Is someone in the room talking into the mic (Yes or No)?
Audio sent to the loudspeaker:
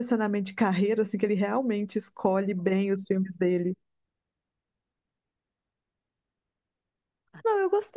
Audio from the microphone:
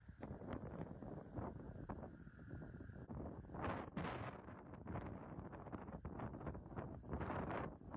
No